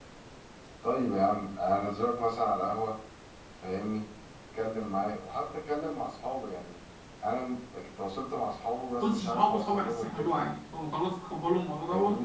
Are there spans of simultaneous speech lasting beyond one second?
Yes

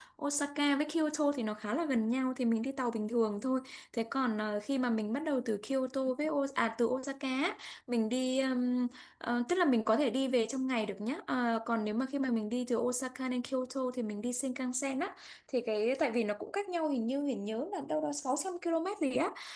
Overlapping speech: No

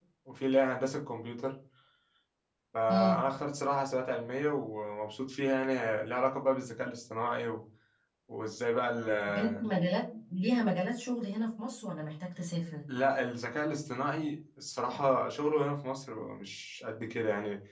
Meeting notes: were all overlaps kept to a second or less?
Yes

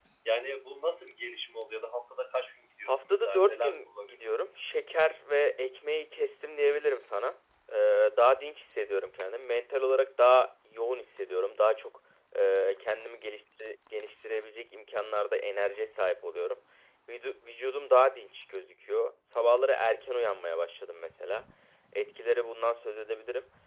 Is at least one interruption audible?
Yes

